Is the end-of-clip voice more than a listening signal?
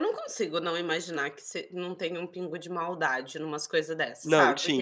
Yes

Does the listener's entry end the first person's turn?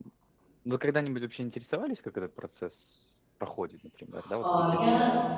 Yes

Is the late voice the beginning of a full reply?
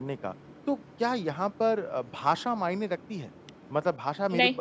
No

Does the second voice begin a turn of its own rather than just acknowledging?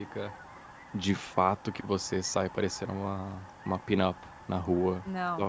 No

